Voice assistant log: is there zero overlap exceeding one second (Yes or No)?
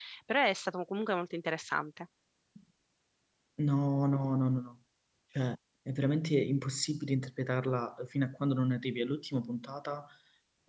Yes